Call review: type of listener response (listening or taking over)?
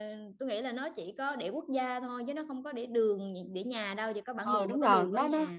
taking over